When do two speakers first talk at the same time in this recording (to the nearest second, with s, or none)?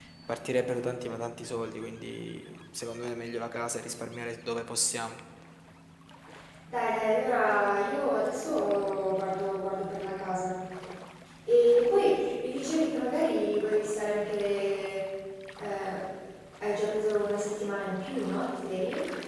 none